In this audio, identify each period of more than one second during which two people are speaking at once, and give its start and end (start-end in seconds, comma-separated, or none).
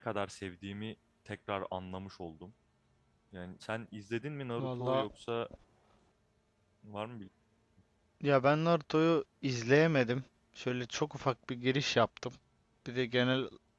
none